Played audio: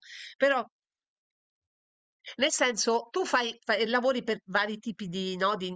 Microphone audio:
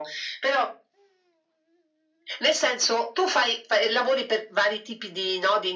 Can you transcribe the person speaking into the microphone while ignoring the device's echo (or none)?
none